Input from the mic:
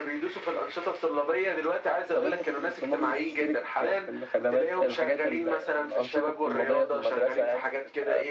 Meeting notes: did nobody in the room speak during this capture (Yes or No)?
No